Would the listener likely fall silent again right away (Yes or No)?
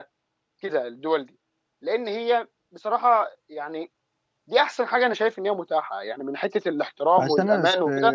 No